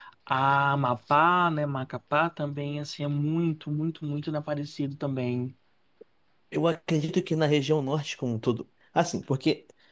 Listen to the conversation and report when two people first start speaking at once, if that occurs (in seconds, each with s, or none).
none